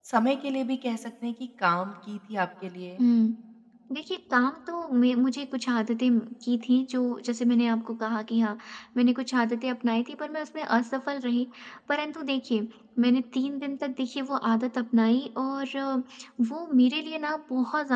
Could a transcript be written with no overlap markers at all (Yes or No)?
Yes